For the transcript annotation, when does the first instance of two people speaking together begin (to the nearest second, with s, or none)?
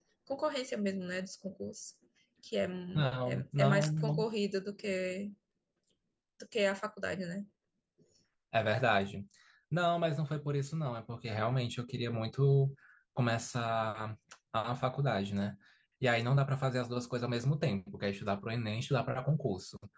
3 s